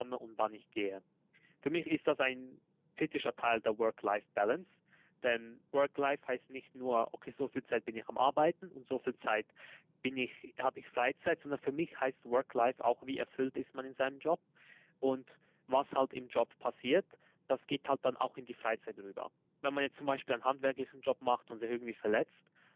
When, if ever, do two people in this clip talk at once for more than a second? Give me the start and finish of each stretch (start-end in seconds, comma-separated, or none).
none